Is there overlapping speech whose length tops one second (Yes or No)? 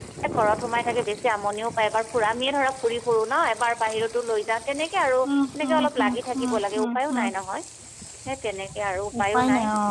Yes